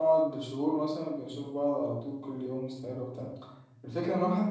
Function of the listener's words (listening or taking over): listening